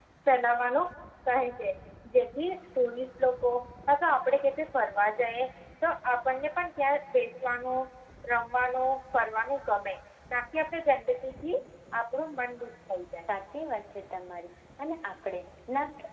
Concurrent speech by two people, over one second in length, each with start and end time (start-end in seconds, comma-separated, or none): none